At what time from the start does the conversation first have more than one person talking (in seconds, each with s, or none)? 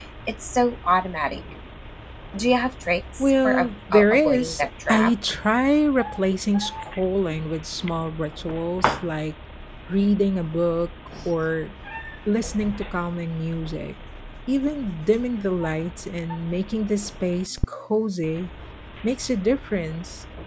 3.2 s